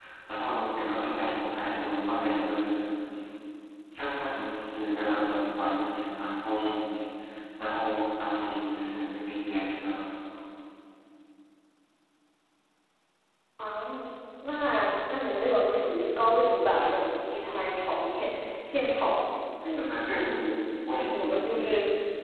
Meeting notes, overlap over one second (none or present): none